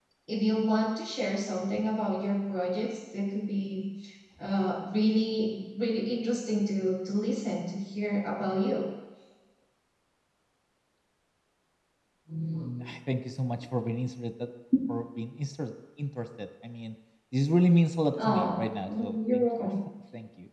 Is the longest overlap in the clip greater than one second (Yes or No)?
Yes